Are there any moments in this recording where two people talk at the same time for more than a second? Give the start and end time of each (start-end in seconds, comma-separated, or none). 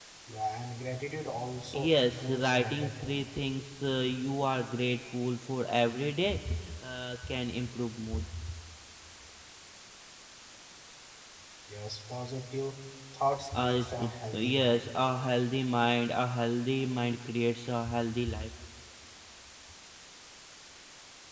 1.7-3.2, 13.6-14.9